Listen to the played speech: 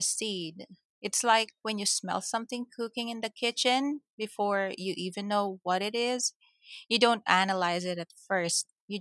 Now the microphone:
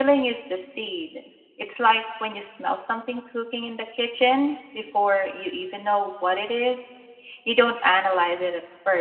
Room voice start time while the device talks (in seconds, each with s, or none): none